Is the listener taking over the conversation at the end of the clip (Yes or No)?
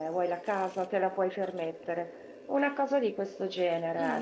Yes